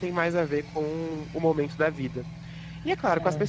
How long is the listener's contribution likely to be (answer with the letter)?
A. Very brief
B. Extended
A